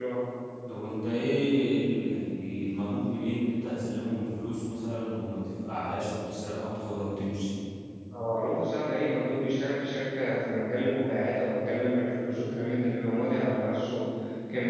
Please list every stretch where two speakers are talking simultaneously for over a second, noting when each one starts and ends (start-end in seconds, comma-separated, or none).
none